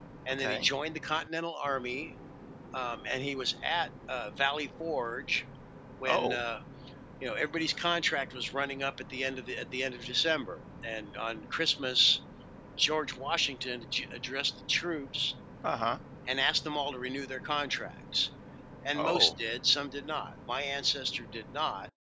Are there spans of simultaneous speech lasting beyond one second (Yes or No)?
No